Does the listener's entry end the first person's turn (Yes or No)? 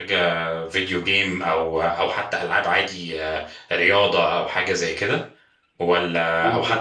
No